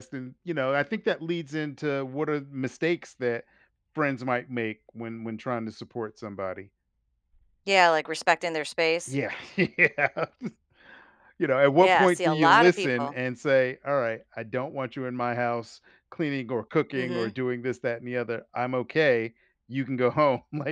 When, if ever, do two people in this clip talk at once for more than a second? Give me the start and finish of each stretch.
11.8-13.1

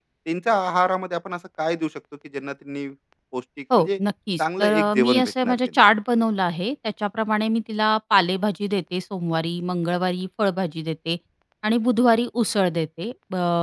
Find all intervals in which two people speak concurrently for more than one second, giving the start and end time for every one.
4.4-5.7

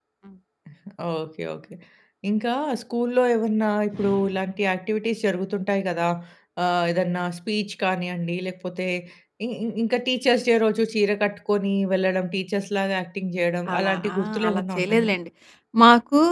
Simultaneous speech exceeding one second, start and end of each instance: 13.7-15.1

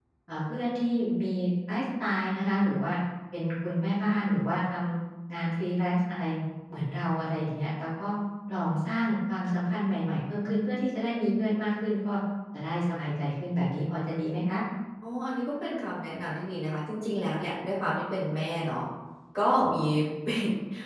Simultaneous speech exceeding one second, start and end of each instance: none

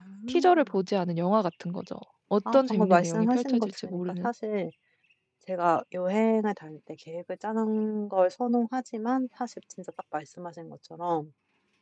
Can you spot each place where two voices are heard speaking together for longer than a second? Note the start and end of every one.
2.5-4.3

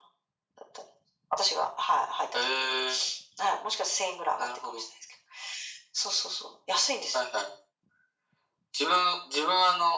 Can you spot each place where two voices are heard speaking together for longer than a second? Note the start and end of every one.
none

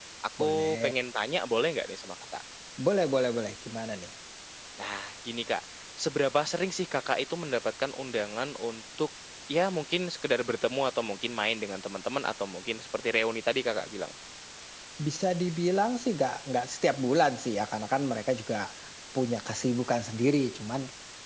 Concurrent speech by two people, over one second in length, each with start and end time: none

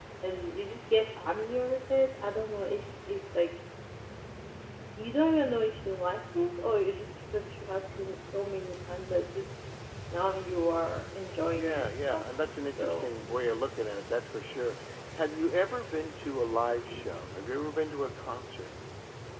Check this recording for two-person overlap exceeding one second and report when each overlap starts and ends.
11.6-13.1

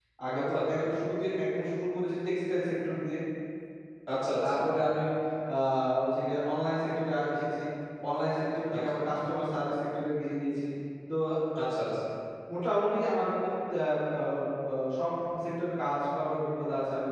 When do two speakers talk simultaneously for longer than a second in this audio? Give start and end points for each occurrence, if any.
none

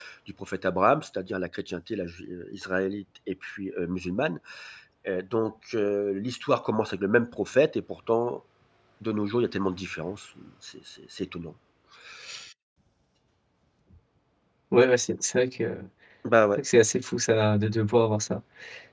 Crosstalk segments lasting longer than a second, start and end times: none

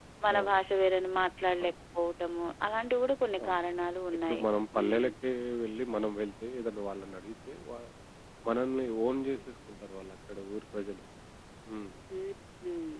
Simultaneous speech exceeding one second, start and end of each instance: none

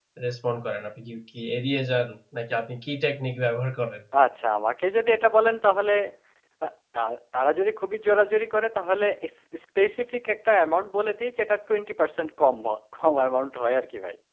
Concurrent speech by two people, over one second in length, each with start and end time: none

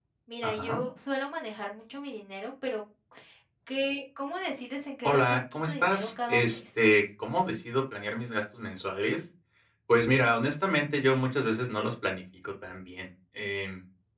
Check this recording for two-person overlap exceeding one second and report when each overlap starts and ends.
5.0-6.6

